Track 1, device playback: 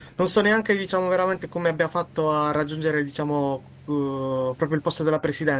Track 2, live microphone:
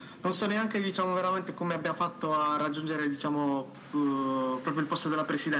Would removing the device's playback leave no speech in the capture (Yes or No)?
Yes